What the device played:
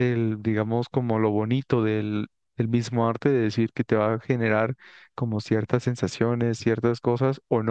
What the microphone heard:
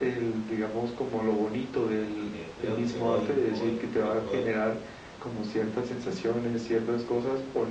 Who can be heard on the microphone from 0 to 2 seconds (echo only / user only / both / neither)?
echo only